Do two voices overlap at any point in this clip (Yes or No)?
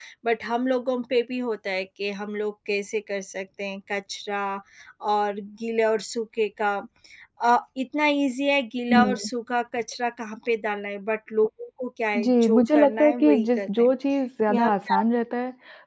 Yes